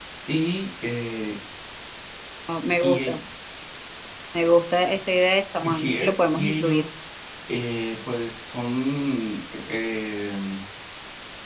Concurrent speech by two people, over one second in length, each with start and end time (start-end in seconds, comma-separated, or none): 5.6-6.9